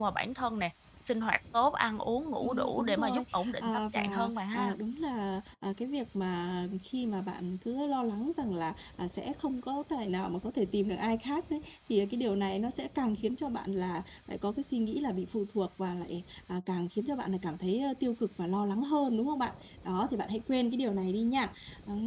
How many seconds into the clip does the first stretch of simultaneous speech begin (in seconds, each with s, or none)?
2.4 s